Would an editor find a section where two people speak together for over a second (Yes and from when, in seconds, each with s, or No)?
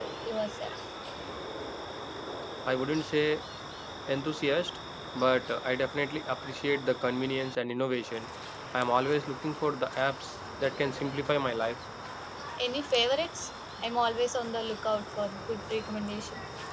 No